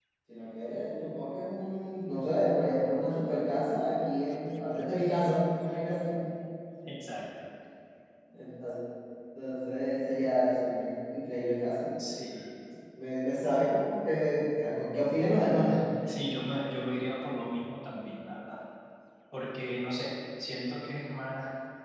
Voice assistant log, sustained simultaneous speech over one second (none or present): none